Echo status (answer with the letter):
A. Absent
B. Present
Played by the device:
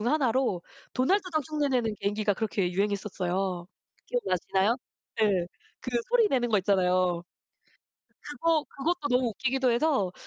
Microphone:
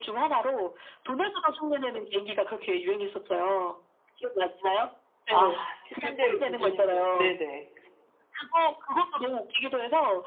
B